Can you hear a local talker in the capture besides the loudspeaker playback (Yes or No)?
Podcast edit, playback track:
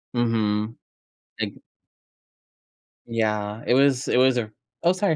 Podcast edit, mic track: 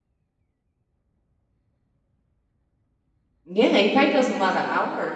Yes